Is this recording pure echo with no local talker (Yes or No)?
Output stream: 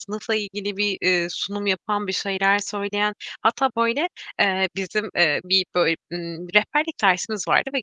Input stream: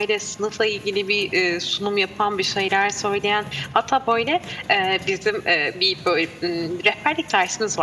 Yes